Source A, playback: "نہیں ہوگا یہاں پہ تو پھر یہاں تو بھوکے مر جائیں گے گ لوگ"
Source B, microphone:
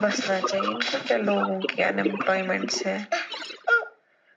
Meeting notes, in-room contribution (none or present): present